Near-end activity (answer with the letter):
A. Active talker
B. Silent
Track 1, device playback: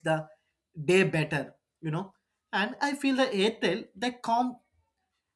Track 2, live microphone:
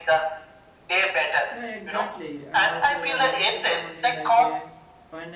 A